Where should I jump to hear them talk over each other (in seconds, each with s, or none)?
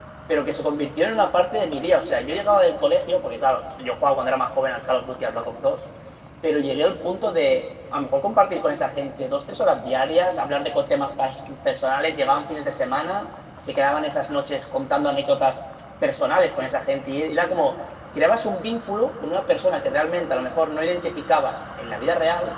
none